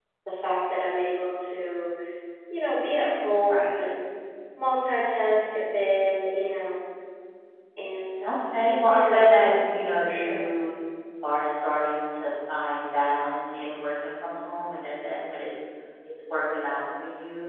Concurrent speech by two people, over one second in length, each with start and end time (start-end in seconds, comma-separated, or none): 8.2-9.5